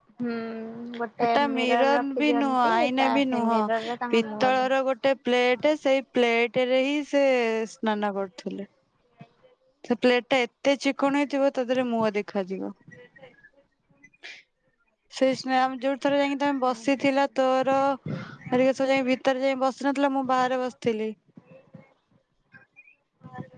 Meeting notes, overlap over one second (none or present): present